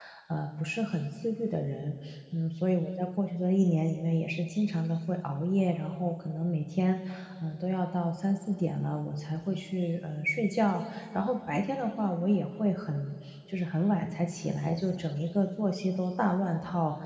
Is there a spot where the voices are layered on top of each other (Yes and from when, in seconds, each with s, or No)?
No